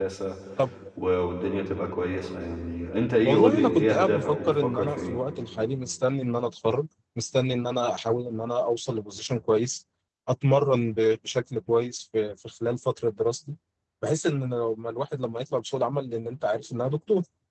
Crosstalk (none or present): present